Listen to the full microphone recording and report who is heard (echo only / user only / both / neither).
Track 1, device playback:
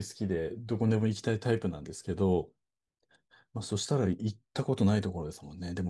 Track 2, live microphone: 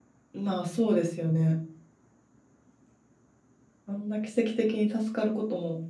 user only